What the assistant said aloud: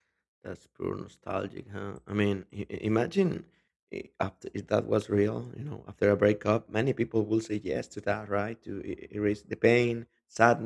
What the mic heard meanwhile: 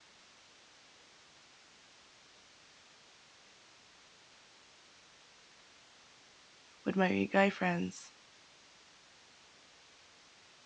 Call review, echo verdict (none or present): none